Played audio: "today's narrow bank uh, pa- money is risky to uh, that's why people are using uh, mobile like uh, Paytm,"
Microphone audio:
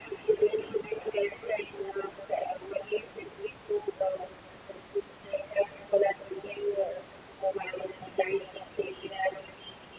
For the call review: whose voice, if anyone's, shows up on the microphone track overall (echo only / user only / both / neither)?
echo only